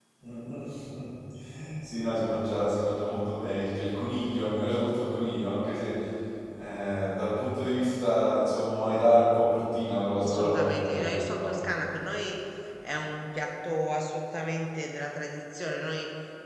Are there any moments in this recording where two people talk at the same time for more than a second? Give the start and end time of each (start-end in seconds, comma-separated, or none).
10.2-11.6